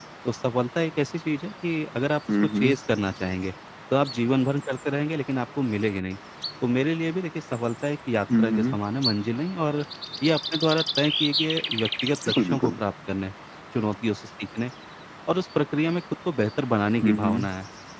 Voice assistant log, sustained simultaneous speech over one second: none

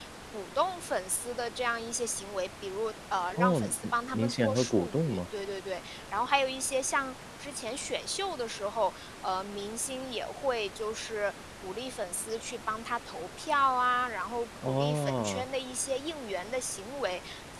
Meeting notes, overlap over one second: present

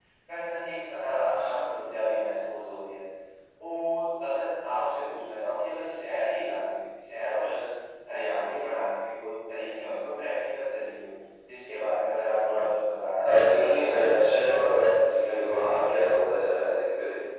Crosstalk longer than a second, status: present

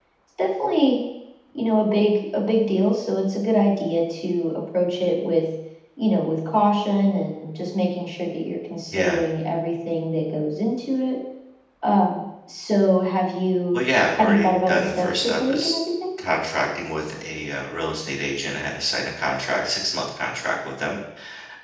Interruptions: present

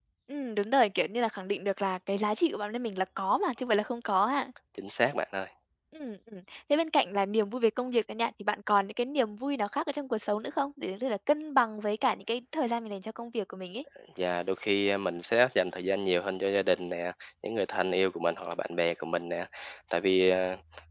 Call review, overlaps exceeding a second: none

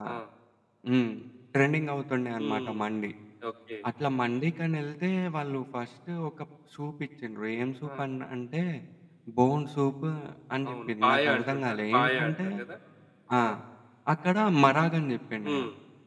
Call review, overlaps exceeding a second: present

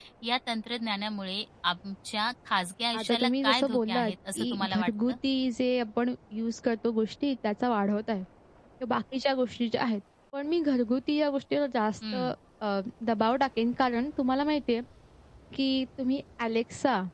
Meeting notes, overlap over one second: present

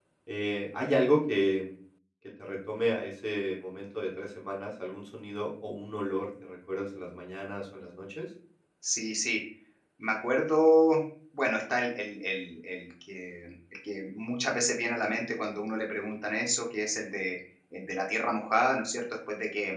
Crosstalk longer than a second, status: none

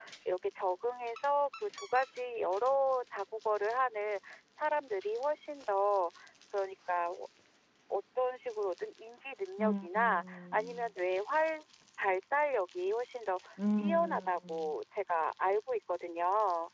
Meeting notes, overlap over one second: present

